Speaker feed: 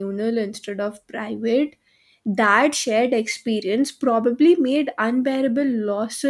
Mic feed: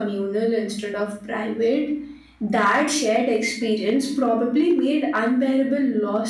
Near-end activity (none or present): none